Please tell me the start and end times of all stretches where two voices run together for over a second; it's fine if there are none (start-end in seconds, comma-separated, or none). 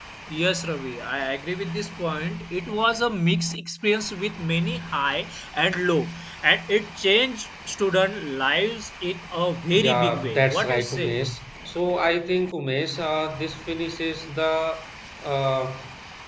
9.8-11.2